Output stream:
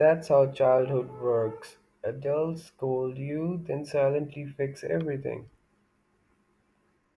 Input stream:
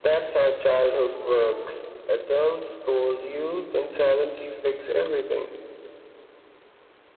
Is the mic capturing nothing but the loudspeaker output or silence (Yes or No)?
Yes